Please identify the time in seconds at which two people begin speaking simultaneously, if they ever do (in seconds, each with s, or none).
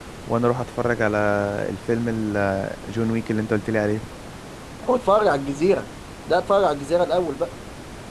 none